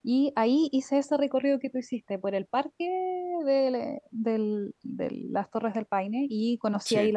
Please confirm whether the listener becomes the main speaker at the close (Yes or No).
No